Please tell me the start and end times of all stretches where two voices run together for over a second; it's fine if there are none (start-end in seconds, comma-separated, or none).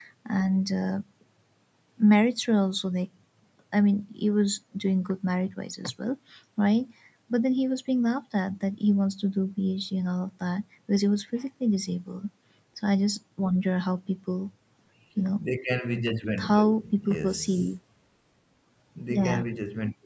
16.4-17.6